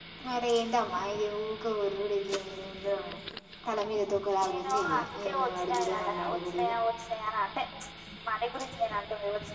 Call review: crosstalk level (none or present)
present